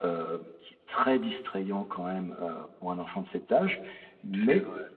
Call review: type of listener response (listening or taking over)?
listening